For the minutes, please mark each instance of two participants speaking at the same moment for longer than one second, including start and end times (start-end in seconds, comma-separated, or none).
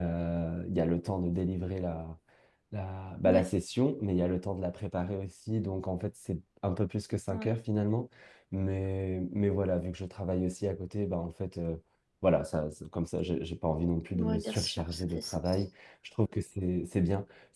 14.1-15.6